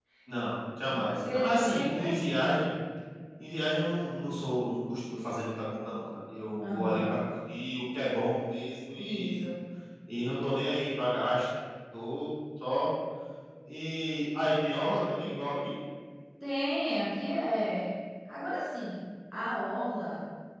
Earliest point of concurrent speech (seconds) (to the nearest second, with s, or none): 1 s